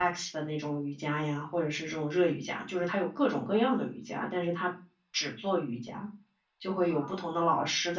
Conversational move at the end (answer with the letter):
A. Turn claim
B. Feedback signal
B